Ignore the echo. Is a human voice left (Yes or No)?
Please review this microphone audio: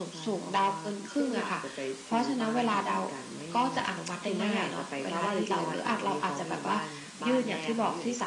No